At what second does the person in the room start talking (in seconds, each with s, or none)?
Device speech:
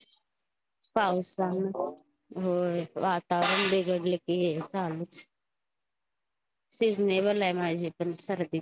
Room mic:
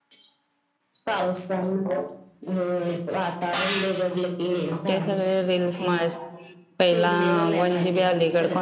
4.9 s